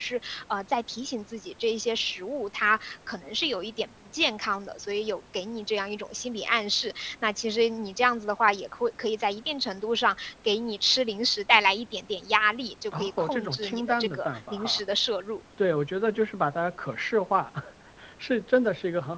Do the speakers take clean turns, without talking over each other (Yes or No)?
No